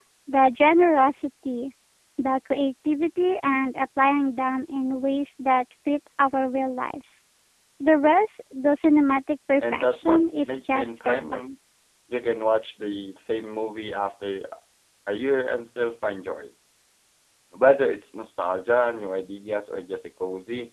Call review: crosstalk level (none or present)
present